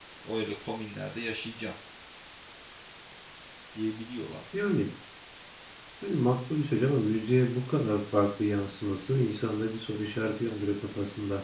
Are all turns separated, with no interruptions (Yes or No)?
Yes